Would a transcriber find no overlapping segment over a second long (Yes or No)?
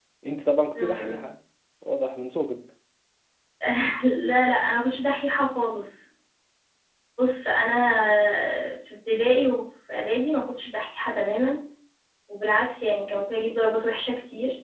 Yes